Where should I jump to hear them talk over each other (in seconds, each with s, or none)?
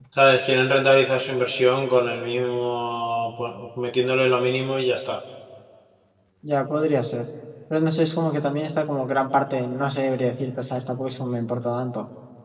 none